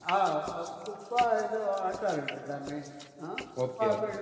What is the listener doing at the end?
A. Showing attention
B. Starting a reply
A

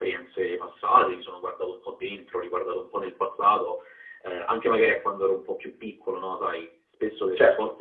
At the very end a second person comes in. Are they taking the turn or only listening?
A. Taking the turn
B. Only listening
B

